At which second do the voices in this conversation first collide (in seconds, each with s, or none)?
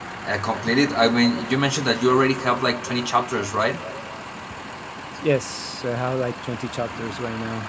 none